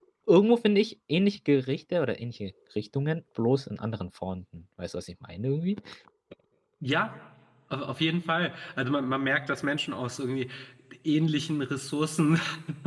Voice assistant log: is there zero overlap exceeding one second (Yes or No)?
Yes